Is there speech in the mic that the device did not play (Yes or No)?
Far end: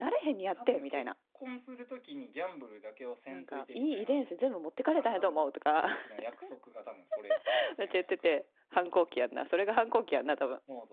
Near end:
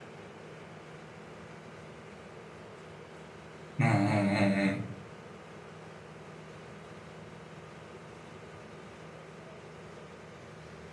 Yes